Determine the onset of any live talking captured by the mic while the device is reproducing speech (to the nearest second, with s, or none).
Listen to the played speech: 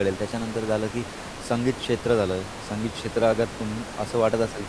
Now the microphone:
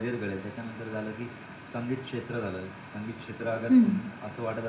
4 s